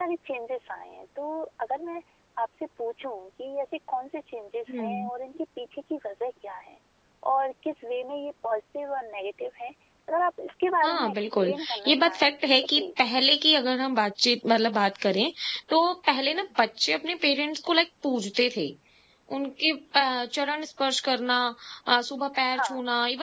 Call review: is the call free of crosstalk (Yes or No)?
No